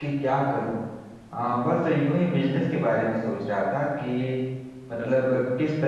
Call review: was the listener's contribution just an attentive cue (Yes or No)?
Yes